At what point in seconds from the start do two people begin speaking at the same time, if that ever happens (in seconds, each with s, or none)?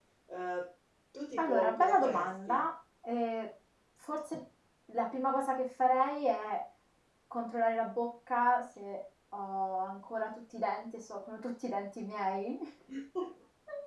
1.4 s